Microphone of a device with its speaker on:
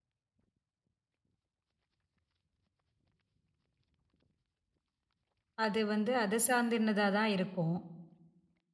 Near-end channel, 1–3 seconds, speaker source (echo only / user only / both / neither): neither